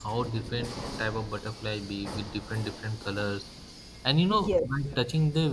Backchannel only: Yes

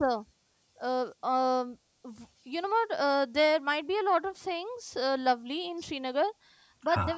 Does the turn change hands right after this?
No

